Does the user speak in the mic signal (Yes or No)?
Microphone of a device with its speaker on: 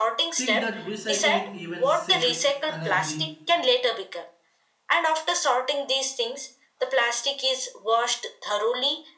Yes